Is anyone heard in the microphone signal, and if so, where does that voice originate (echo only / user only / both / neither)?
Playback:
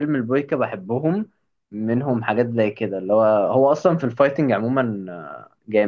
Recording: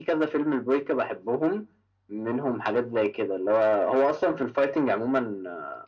echo only